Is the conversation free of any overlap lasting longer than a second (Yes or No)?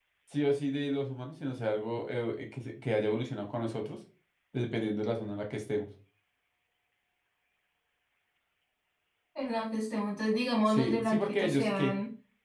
No